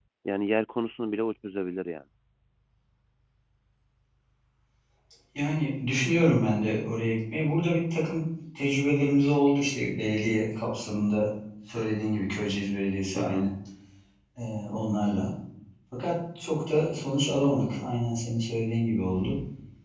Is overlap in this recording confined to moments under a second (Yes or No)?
Yes